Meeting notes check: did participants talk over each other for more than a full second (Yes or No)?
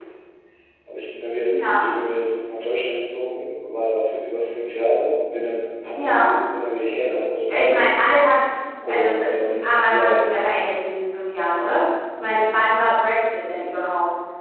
Yes